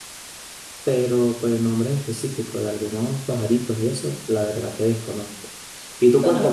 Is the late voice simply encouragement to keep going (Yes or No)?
Yes